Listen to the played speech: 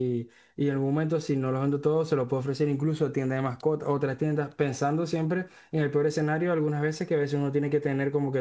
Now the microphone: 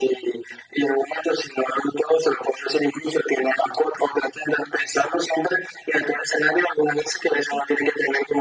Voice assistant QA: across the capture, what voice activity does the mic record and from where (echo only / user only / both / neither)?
echo only